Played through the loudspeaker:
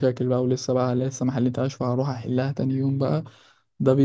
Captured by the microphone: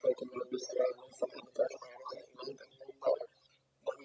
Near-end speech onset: none

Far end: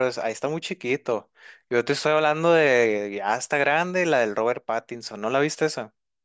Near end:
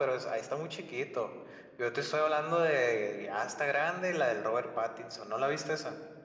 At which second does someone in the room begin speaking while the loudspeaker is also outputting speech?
none

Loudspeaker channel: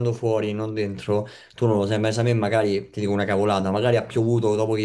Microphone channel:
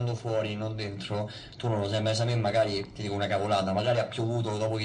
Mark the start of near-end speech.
none

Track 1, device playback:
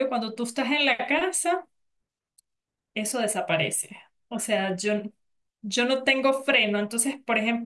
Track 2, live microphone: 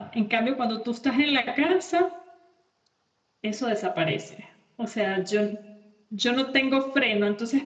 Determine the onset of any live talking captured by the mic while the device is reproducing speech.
none

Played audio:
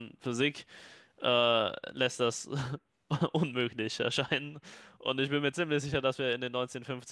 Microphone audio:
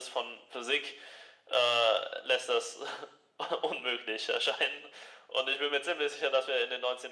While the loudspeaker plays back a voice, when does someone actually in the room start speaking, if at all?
none

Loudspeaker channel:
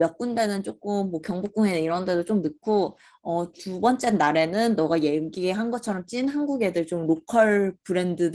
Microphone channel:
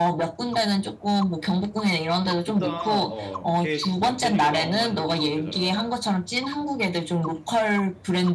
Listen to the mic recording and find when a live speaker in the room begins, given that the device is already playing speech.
2.4 s

